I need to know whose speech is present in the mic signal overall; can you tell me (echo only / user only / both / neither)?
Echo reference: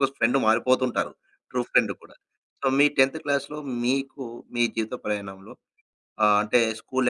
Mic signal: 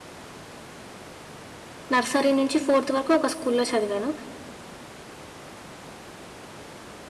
user only